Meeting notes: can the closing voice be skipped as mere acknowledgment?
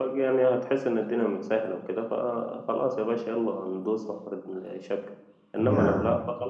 Yes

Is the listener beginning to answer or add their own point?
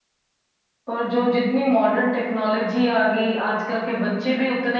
No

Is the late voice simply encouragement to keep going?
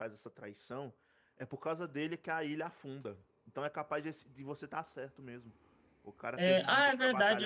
No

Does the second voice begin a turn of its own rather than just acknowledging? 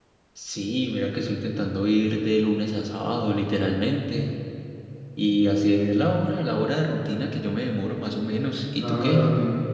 Yes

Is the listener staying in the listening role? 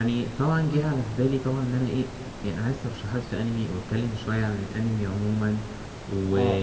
Yes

